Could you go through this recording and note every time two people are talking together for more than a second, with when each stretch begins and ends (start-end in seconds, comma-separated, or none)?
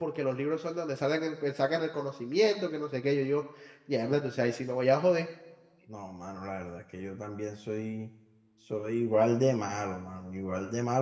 none